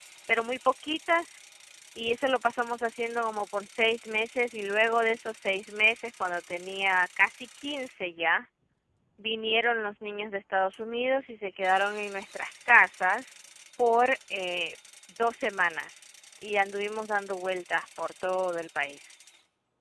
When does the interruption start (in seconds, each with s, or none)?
none